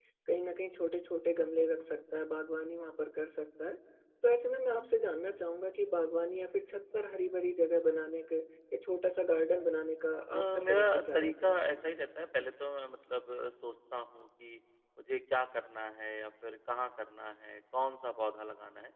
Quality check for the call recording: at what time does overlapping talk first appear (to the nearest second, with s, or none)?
10 s